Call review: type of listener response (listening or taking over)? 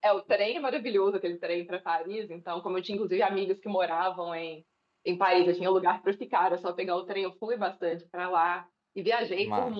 listening